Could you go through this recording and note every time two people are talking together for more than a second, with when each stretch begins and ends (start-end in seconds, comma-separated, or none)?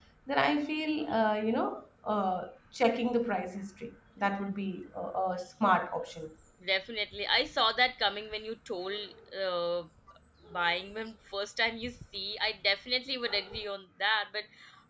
none